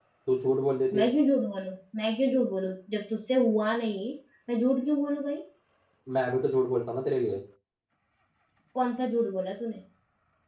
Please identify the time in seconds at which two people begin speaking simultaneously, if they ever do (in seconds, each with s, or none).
none